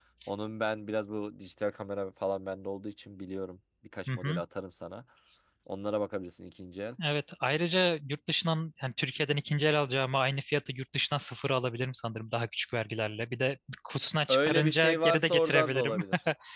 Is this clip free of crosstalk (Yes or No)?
No